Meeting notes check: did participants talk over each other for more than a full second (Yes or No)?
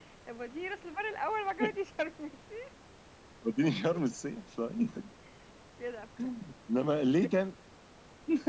No